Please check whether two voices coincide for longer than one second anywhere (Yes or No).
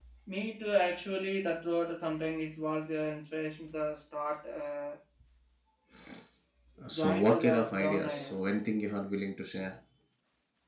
Yes